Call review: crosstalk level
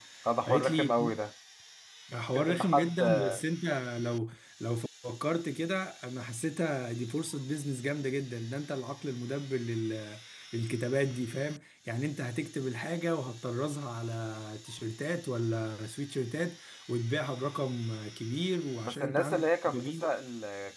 present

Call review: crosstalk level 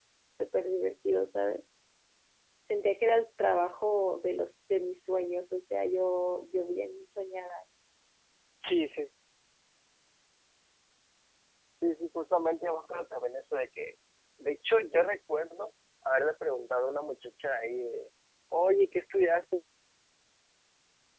none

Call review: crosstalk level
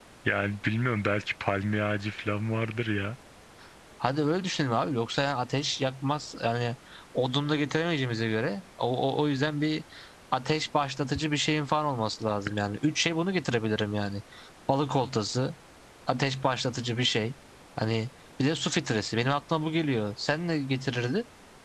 none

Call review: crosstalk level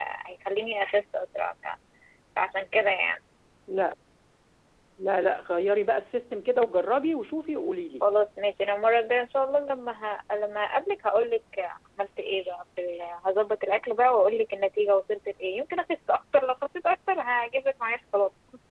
none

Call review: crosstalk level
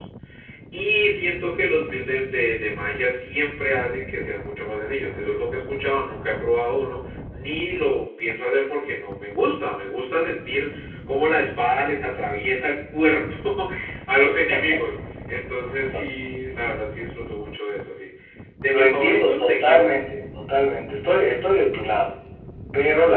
present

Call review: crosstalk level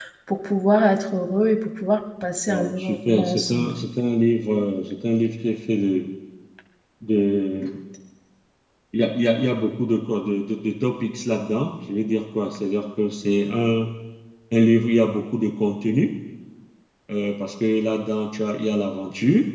present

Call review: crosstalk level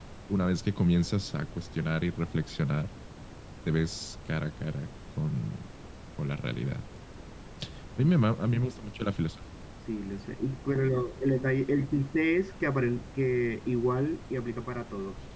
none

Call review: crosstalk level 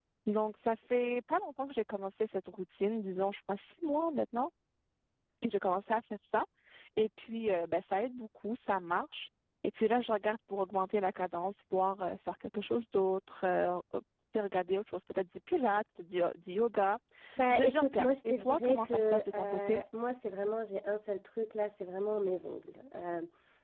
present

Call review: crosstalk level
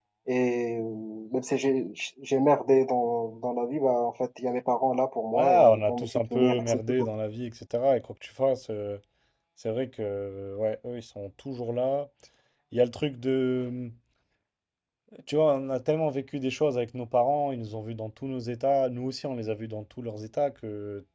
present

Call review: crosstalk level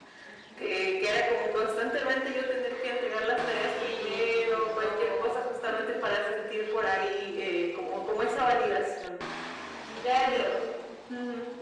present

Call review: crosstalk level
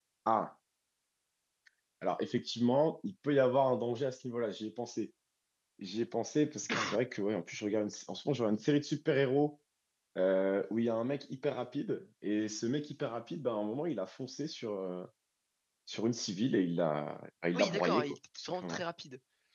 present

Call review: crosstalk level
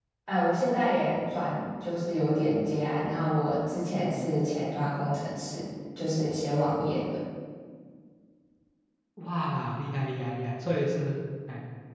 none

